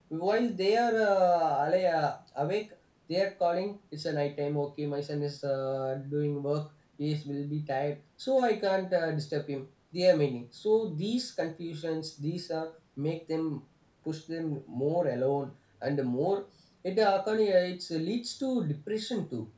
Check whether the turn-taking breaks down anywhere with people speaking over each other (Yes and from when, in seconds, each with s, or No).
No